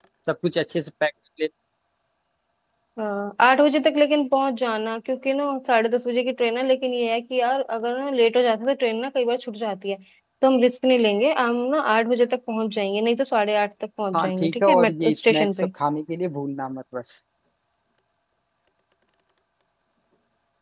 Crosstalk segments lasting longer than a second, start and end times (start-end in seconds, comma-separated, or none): 14.2-15.7